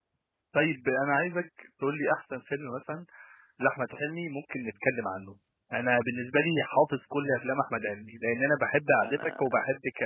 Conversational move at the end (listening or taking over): listening